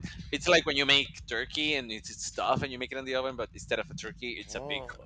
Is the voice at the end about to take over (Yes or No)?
Yes